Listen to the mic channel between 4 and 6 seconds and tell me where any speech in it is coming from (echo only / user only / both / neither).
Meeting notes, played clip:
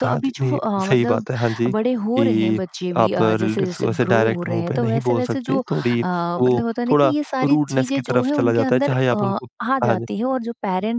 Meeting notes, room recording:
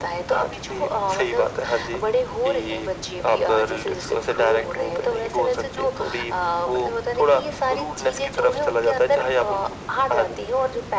echo only